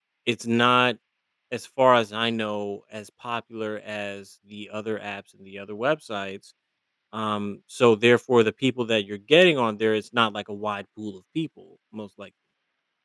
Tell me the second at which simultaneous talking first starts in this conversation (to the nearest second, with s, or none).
none